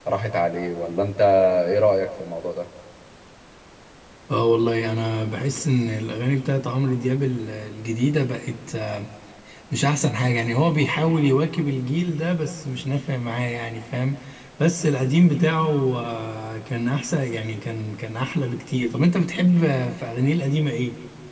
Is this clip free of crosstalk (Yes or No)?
Yes